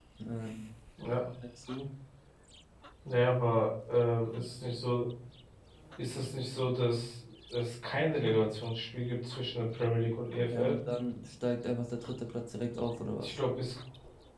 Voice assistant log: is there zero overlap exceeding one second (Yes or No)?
Yes